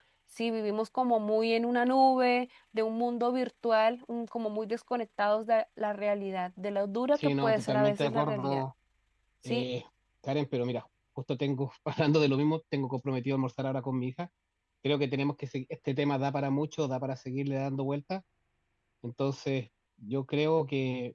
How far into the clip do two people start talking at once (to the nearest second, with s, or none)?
7 s